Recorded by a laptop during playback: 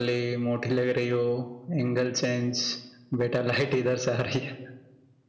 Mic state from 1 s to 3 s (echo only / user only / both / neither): echo only